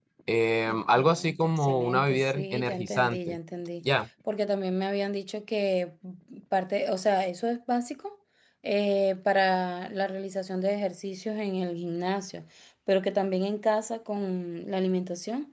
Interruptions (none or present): present